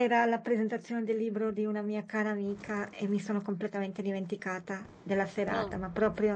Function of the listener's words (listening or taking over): listening